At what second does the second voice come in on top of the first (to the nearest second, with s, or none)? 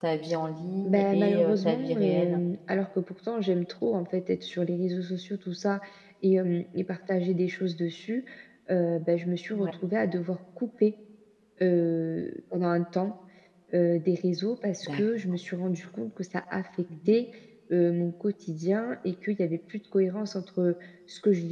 1 s